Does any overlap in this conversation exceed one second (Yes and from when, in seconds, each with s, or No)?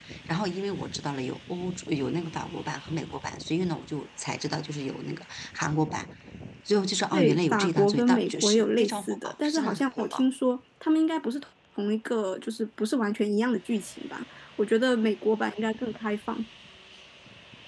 Yes, from 7.1 s